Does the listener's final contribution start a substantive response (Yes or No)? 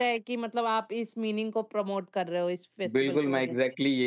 Yes